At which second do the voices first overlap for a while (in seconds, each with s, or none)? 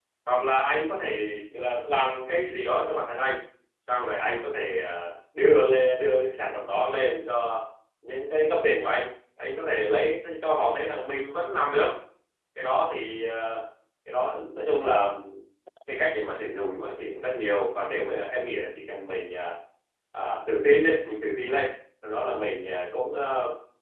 none